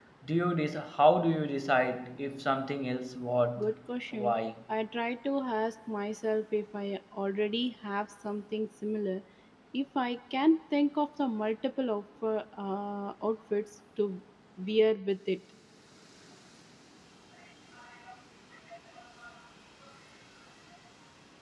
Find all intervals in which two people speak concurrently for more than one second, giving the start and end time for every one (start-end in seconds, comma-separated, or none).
none